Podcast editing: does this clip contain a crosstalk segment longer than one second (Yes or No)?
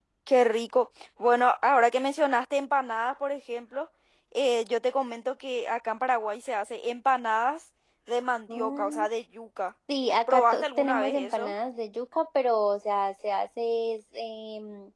Yes